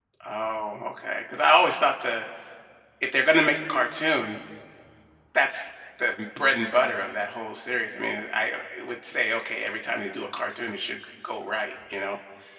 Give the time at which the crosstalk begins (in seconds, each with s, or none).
none